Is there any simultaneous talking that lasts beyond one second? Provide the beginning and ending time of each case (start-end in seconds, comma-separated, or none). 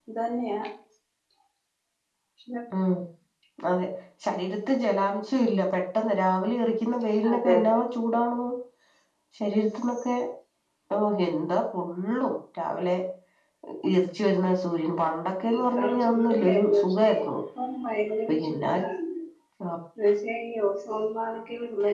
15.6-17.2